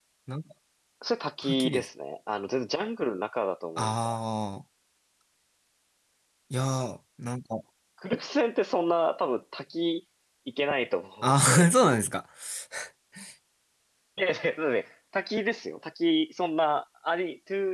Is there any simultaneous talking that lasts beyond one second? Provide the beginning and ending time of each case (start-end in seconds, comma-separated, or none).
none